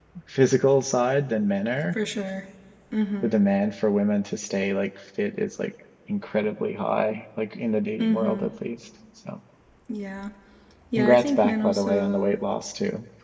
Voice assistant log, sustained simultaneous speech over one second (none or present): present